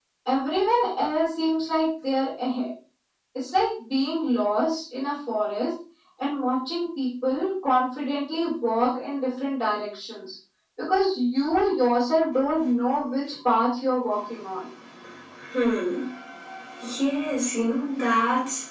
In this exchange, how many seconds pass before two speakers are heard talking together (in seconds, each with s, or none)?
none